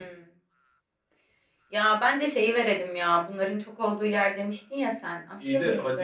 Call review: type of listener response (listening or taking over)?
taking over